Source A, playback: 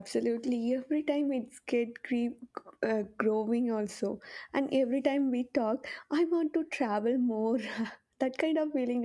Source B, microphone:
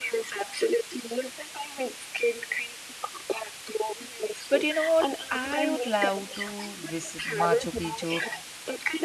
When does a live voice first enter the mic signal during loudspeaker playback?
4.5 s

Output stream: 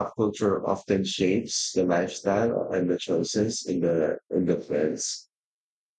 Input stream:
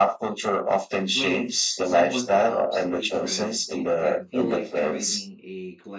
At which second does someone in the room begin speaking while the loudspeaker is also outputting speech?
1.1 s

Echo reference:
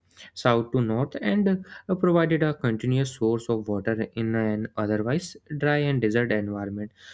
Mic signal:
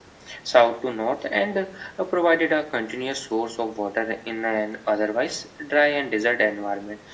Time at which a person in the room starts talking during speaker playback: none

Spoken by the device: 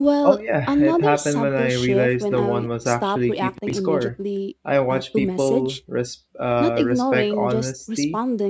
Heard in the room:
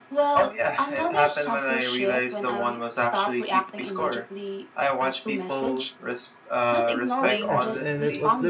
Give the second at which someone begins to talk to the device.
7.2 s

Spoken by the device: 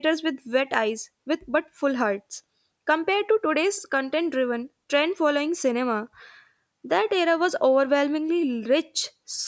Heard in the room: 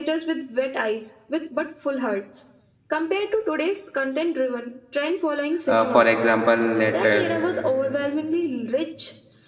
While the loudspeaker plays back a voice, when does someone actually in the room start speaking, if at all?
5.7 s

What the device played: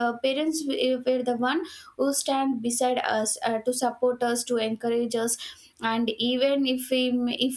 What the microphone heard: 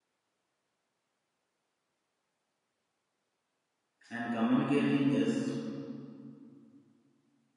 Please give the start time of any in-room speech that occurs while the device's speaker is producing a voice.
4.1 s

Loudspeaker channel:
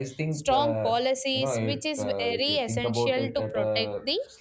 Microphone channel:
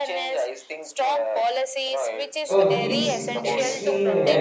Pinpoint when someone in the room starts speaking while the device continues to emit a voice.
2.4 s

